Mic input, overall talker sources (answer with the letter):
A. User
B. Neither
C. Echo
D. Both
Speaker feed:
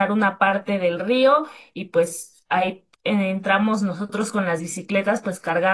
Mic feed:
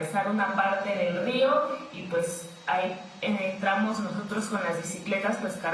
C